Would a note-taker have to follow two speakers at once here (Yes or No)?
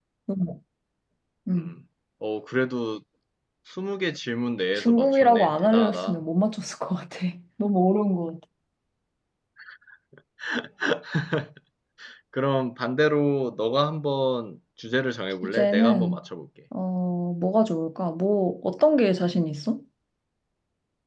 Yes